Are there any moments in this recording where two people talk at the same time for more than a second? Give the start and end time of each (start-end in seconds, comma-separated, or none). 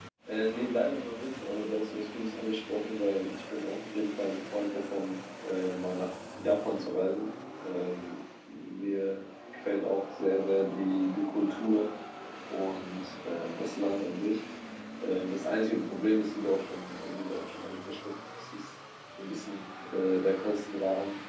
none